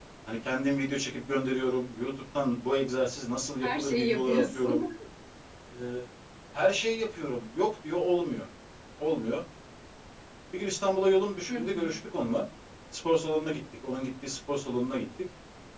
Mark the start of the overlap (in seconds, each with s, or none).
3.6 s